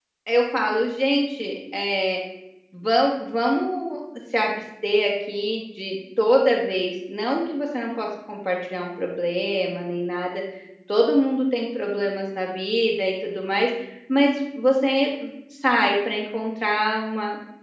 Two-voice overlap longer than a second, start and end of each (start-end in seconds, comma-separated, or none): none